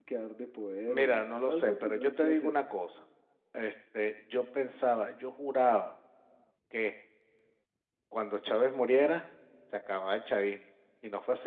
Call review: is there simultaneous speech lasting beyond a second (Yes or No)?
Yes